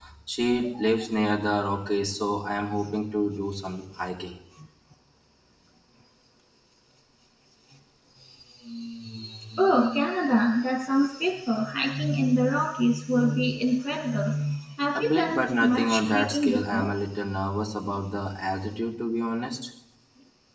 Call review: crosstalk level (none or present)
present